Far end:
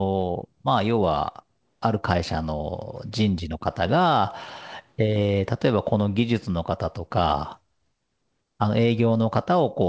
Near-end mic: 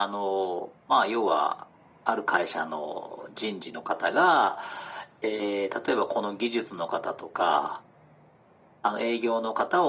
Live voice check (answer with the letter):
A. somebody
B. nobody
B